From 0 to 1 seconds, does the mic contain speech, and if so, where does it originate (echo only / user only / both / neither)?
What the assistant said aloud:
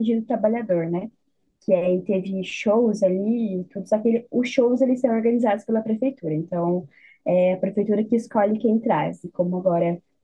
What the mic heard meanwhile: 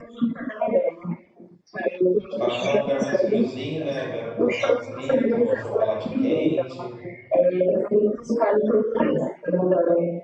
echo only